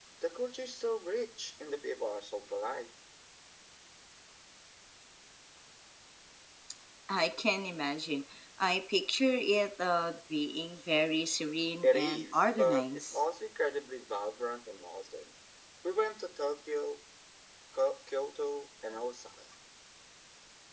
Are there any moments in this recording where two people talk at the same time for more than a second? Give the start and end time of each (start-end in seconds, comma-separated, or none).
11.8-13.2